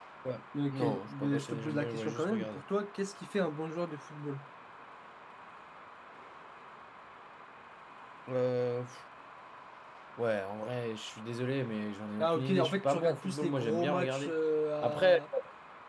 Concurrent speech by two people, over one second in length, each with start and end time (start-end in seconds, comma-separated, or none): 0.7-2.6, 12.2-14.3